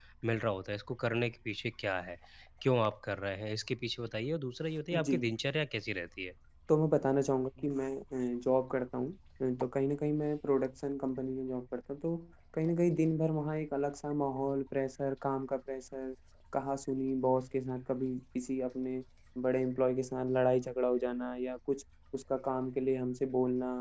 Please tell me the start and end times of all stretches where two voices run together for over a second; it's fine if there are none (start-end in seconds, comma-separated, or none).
none